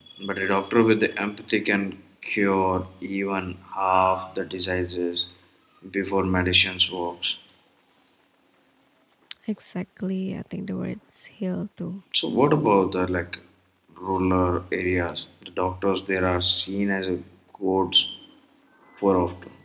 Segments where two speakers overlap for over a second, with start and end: none

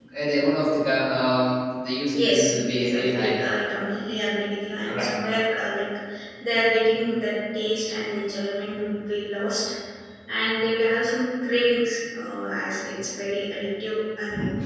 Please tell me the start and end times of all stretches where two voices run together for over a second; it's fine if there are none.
2.1-3.4

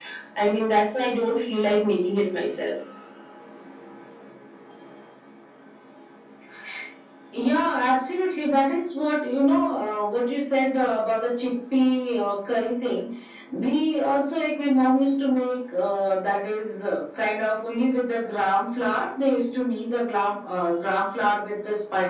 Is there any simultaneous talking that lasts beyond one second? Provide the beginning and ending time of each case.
none

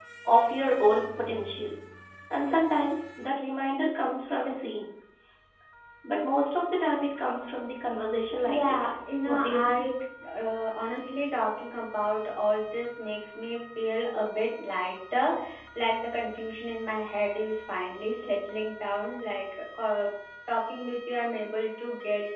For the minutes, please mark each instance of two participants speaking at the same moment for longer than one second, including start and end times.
8.5-9.8

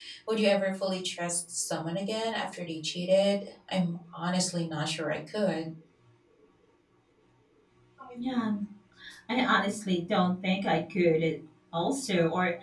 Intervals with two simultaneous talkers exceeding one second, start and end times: none

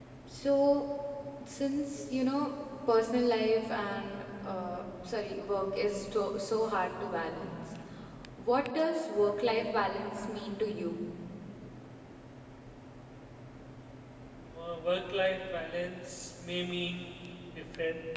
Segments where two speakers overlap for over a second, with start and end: none

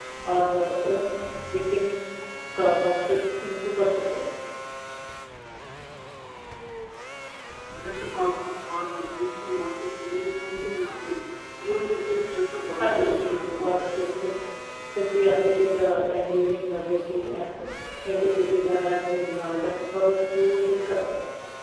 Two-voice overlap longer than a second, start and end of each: 12.8-14.0

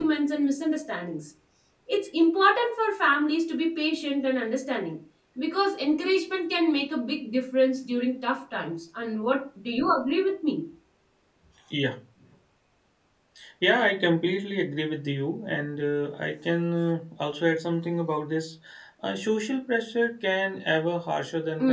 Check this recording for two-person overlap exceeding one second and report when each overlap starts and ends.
none

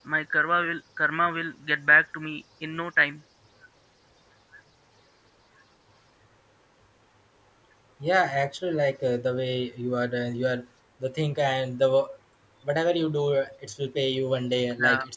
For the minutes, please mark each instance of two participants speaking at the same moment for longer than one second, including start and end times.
none

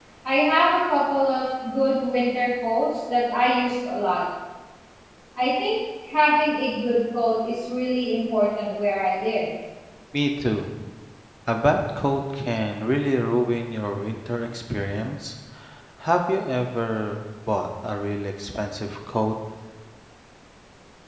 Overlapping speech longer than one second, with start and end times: none

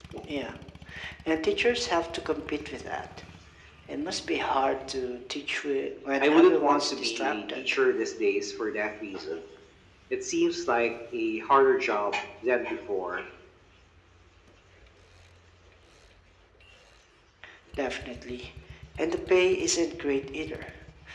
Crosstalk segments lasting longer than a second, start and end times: 6.2-7.6

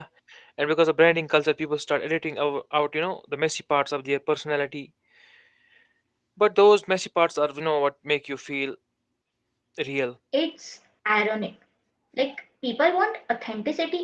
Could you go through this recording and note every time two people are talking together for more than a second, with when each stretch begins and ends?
none

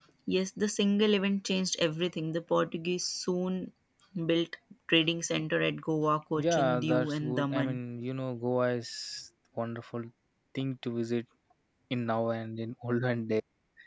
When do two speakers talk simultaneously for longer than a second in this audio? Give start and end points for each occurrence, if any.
6.4-7.8

